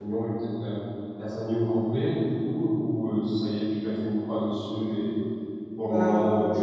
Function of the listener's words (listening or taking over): listening